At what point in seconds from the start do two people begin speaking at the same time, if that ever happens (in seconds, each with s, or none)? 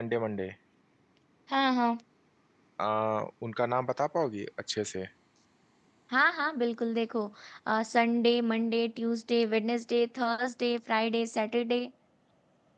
none